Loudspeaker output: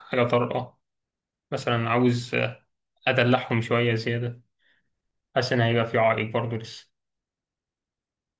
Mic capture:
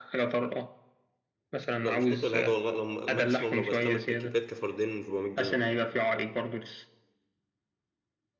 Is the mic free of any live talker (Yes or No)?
No